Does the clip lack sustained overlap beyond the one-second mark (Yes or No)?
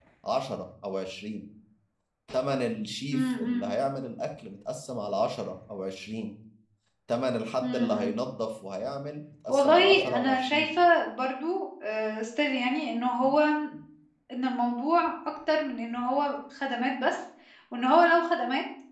No